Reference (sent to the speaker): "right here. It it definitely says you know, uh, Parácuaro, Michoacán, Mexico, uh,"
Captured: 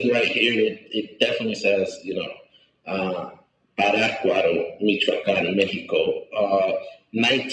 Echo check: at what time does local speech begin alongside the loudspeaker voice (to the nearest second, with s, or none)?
none